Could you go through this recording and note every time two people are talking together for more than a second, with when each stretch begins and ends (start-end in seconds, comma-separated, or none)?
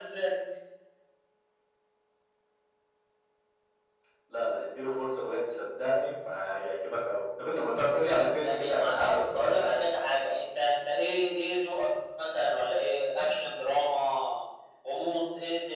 8.1-9.8